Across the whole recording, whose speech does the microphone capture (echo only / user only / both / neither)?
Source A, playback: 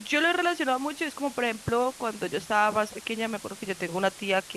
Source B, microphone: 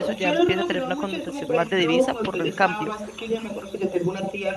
both